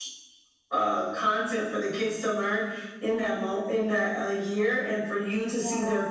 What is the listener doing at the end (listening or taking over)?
listening